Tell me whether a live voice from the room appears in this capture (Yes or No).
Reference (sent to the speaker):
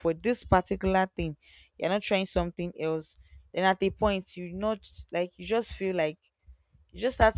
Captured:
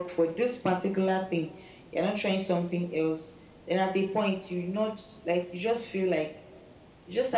No